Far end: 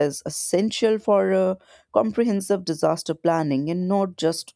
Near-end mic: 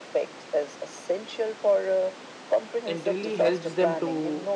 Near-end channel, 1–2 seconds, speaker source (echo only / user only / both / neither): echo only